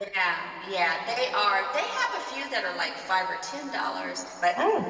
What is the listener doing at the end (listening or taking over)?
listening